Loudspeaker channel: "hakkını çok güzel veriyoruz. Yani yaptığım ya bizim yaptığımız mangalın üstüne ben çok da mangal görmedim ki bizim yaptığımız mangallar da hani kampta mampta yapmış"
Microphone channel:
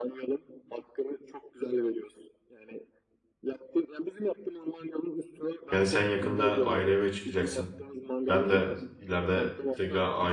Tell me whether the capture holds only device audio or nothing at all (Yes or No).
No